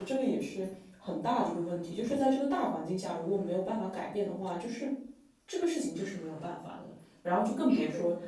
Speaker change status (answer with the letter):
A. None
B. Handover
A